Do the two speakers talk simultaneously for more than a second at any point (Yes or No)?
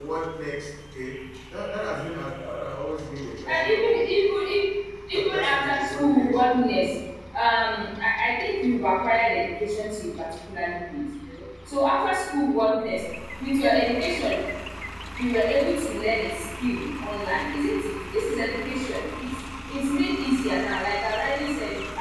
Yes